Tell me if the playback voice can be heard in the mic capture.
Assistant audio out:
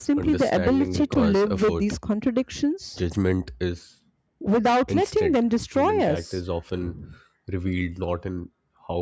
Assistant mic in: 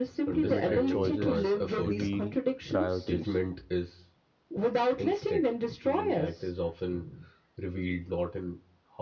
Yes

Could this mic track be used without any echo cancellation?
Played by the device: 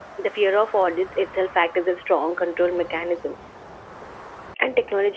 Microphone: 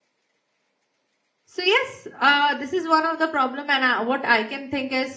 Yes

